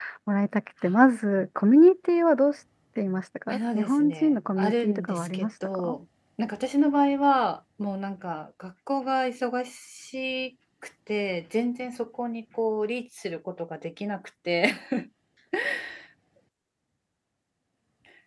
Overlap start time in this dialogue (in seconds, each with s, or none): 3.5 s